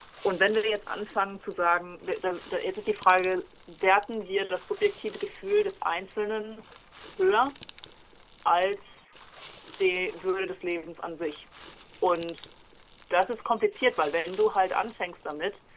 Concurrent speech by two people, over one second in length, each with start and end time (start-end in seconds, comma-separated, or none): none